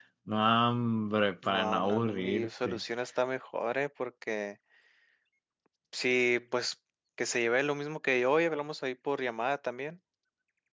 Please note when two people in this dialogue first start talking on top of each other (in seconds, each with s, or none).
1.4 s